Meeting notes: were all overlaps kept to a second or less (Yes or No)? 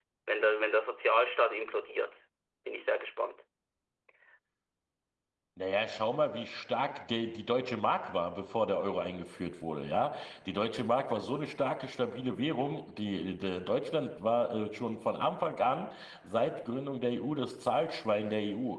Yes